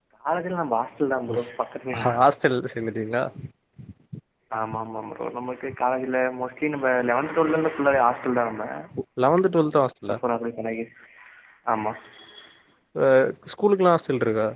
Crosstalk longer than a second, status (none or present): none